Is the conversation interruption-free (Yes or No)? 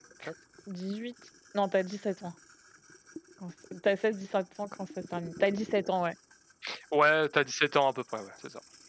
Yes